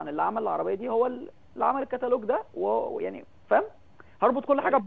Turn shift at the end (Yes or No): No